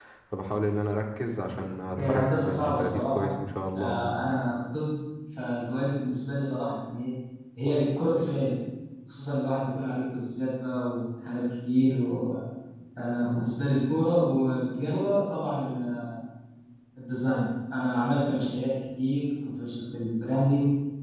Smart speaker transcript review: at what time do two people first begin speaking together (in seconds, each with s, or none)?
2.0 s